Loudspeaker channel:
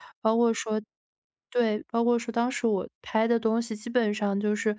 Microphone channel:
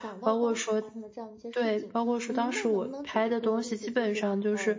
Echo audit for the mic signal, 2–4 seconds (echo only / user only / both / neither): both